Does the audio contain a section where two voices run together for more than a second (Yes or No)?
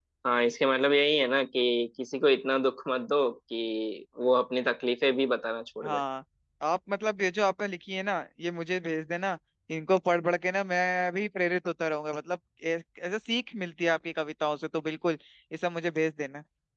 No